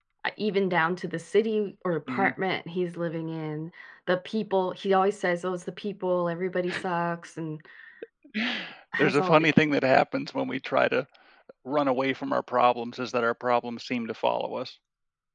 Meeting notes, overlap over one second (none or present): none